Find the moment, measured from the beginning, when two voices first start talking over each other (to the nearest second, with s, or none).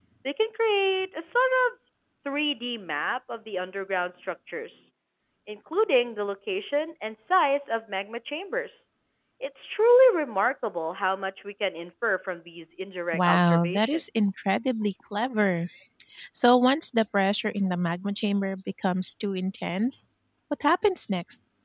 13 s